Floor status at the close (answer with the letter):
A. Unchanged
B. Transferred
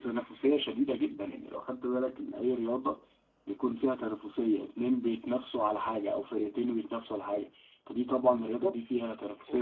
B